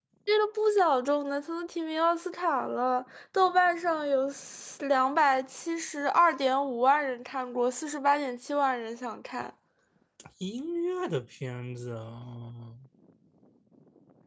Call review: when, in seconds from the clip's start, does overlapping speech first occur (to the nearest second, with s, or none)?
none